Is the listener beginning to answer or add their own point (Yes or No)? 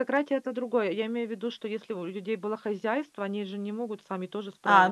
Yes